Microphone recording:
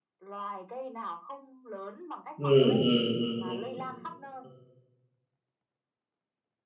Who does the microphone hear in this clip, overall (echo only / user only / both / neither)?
both